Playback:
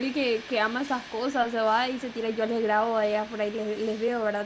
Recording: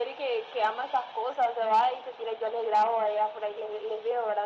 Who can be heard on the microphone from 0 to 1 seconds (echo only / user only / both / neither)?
echo only